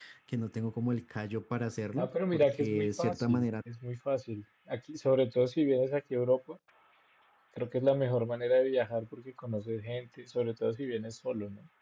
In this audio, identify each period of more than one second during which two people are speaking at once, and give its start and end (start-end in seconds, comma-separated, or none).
1.9-3.5